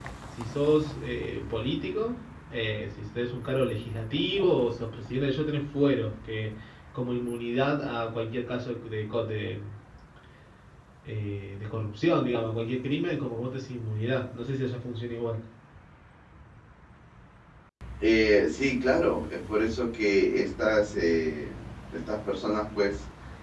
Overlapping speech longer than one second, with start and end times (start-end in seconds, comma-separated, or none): none